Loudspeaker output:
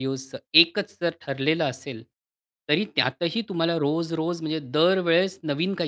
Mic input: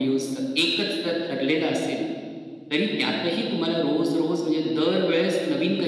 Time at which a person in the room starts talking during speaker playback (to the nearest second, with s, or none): none